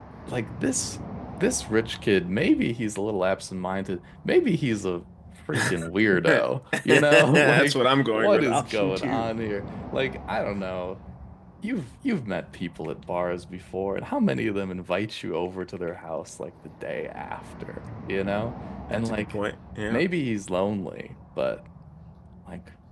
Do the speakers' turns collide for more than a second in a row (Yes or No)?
Yes